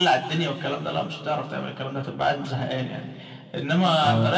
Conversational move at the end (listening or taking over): listening